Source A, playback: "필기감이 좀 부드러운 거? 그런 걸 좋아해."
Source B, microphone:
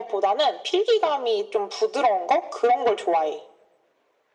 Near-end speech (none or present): none